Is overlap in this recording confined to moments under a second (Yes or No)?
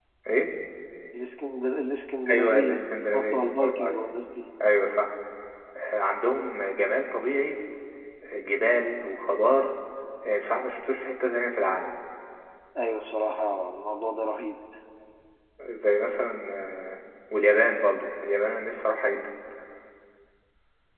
No